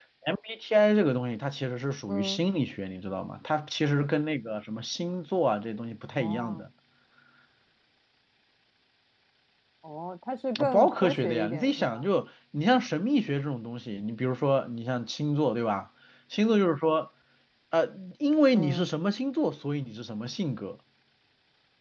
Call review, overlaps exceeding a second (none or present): present